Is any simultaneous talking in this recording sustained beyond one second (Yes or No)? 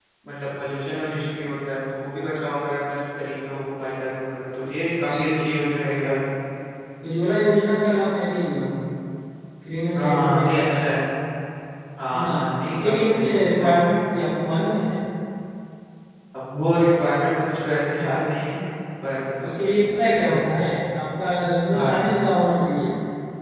Yes